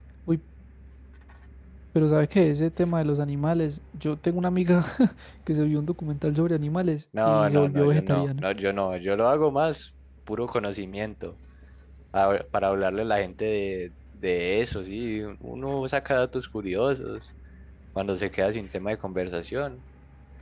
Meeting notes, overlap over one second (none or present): present